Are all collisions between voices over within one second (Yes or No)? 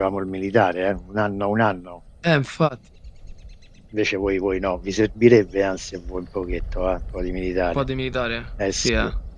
Yes